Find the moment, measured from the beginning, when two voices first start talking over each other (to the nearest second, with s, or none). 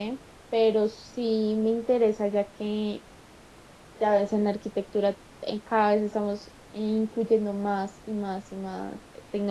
none